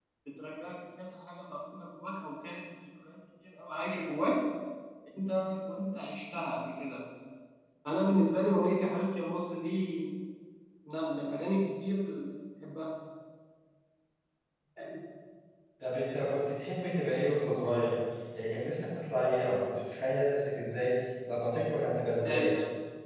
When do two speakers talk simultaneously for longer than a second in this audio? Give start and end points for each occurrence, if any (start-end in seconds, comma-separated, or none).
none